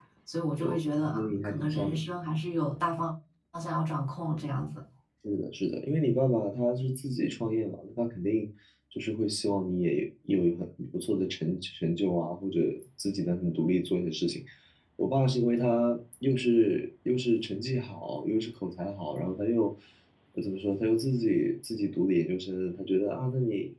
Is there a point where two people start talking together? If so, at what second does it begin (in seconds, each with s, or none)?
0.6 s